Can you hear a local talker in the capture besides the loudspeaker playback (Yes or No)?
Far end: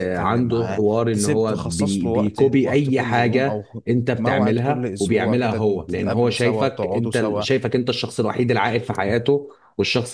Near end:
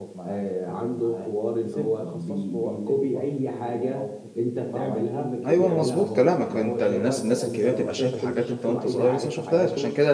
Yes